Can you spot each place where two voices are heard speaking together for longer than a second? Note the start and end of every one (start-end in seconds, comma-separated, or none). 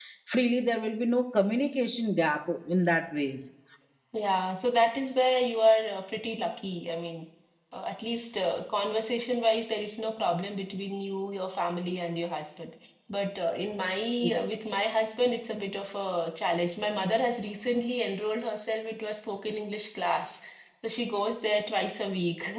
none